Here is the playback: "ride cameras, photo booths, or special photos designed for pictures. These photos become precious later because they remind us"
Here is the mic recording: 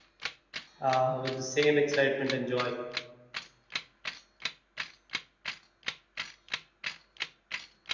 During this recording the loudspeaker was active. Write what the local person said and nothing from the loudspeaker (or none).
uh, with the same excitement and joy